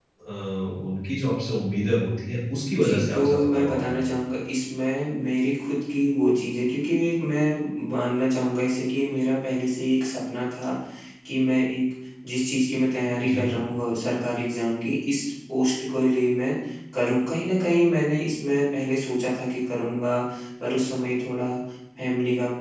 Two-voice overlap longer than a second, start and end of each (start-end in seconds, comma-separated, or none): 2.7-3.9